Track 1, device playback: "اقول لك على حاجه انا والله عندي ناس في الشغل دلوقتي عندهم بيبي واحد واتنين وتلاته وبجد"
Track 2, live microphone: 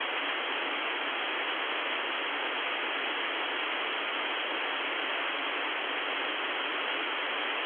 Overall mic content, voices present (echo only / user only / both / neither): neither